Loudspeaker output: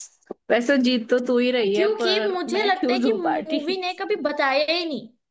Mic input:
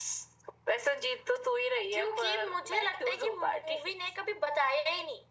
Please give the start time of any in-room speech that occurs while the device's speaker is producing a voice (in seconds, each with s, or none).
none